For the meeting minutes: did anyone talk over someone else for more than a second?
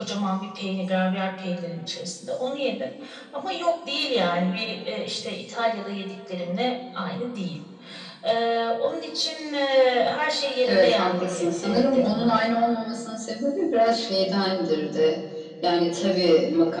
Yes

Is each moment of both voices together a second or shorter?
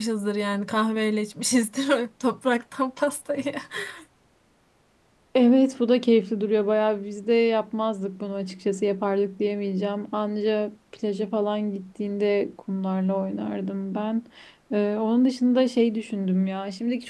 Yes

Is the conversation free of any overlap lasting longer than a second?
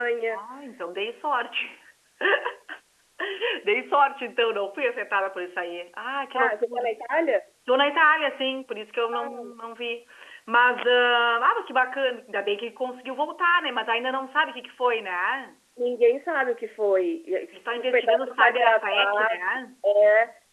No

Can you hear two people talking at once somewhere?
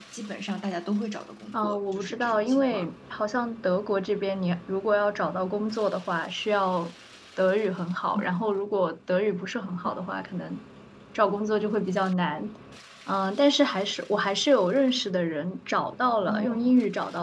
Yes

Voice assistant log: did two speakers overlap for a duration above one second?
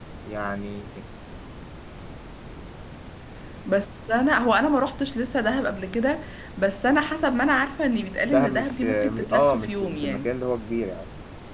Yes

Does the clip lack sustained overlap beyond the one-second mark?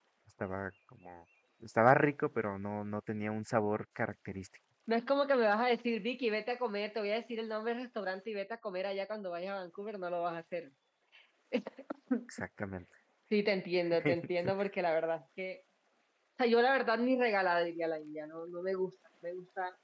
Yes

